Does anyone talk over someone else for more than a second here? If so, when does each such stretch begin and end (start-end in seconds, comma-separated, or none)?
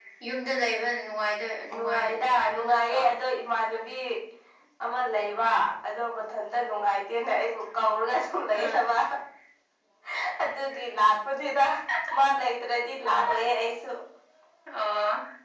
1.7-3.0